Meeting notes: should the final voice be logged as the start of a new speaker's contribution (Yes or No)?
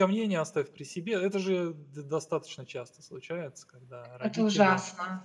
No